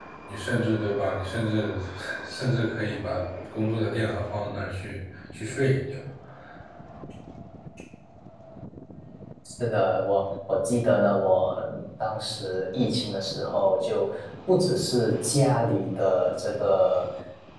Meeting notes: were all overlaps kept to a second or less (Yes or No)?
Yes